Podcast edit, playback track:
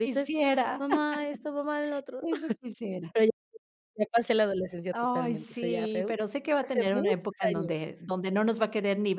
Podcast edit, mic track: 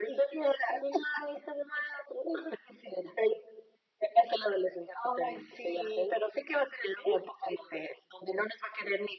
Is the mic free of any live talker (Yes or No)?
Yes